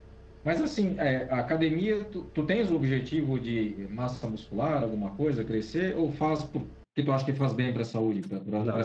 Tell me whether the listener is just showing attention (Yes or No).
No